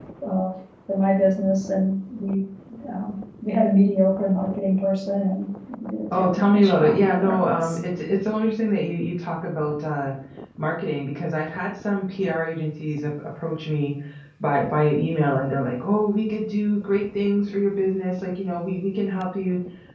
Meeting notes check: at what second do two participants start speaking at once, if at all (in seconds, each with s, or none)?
6.1 s